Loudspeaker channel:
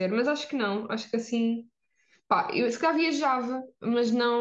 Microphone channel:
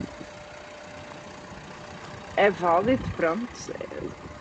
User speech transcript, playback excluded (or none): é válido, pronto. é-